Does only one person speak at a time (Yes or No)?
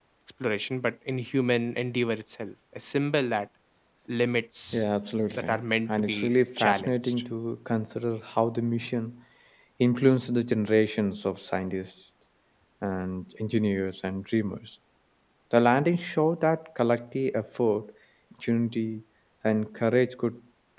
No